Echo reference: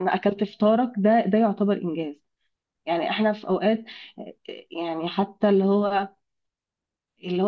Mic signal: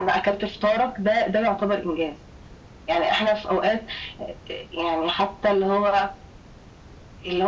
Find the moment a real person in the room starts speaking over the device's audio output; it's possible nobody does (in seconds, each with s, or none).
none